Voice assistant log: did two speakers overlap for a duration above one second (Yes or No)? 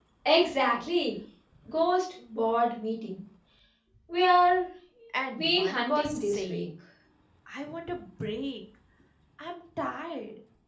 Yes